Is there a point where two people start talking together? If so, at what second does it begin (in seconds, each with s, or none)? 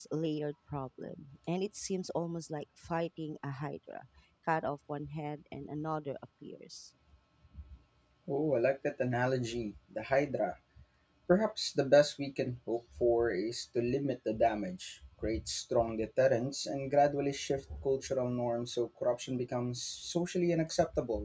none